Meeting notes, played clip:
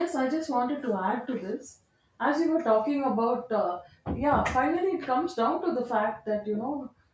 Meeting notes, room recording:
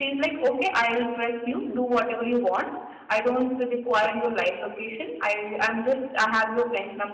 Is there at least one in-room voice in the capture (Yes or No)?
Yes